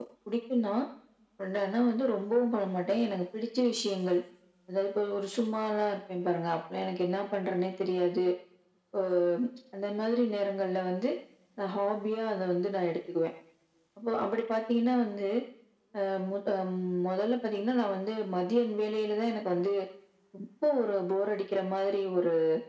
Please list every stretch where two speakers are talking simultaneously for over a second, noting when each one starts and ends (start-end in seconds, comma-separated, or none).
none